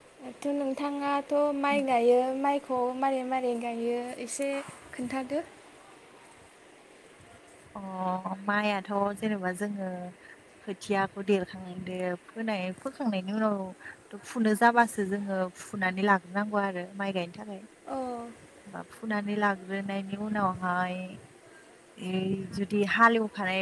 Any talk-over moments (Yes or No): No